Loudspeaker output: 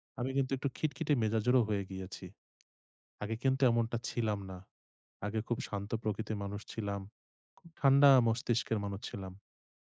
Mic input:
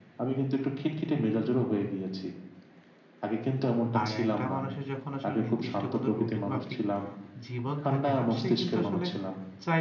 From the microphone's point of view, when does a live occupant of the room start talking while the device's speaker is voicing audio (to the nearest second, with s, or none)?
4 s